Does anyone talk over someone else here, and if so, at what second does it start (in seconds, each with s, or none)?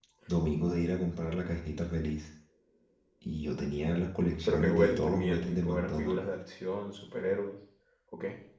4.5 s